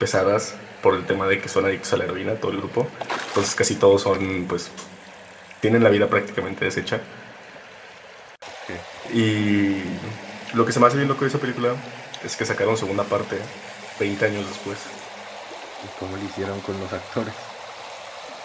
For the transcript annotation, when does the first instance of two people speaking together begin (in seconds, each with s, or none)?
none